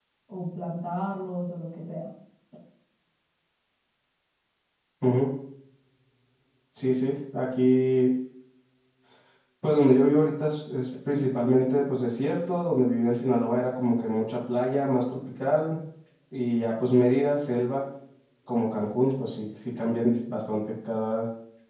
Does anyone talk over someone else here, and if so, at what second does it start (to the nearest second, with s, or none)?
none